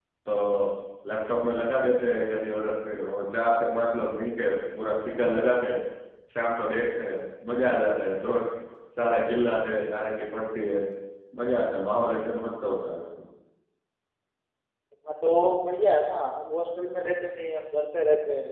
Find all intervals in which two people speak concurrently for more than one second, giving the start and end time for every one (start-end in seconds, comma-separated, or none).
none